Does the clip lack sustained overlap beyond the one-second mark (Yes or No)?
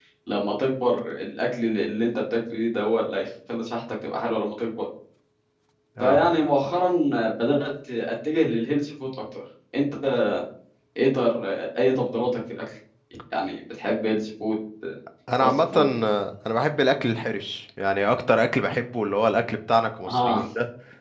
Yes